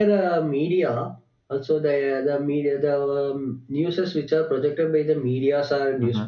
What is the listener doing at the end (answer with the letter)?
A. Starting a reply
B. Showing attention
B